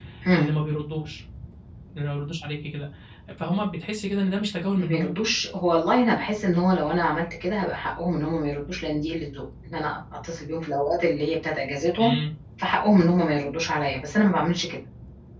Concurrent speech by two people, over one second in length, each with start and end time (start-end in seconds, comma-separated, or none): none